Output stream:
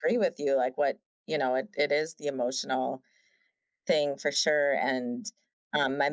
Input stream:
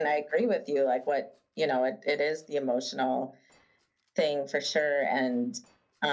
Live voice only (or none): none